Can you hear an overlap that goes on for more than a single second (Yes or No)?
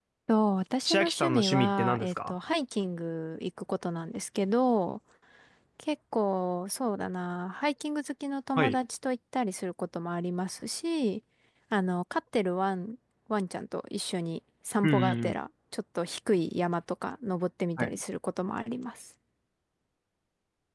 Yes